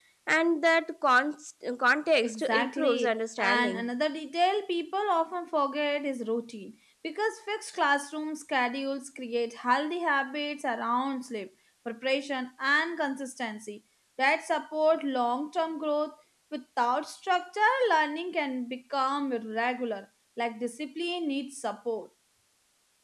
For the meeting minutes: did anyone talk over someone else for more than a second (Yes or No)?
Yes